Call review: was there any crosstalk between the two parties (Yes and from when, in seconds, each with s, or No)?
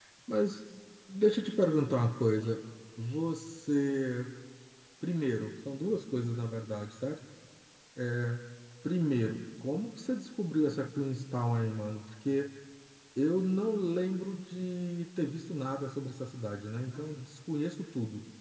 No